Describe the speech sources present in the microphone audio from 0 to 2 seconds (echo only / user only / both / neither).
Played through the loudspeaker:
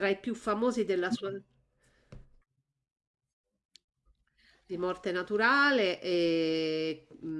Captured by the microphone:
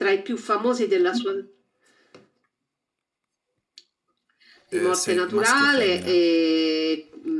echo only